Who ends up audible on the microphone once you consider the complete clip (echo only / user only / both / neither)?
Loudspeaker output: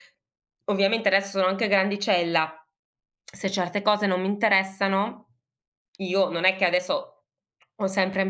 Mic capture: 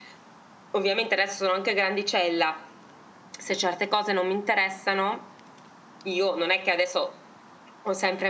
echo only